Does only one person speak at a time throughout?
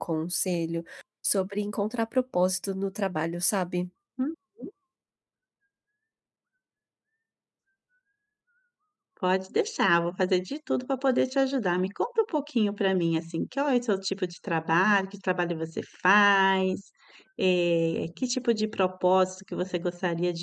Yes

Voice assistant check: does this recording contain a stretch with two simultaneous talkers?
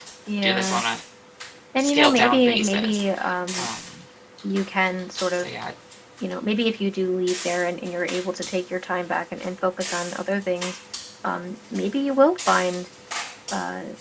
Yes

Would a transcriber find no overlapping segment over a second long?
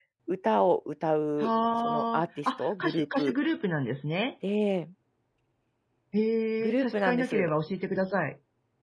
No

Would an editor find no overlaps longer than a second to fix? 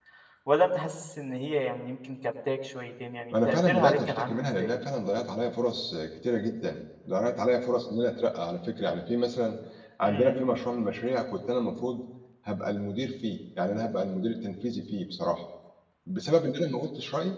No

